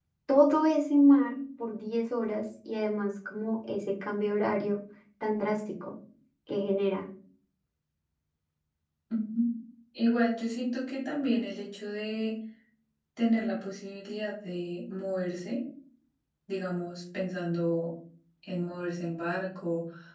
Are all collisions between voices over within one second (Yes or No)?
Yes